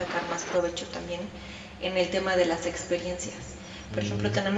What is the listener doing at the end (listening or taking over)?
listening